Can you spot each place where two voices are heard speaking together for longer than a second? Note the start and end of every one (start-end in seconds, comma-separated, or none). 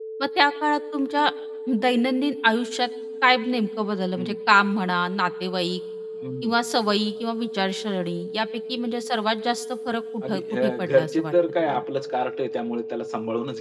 10.2-11.8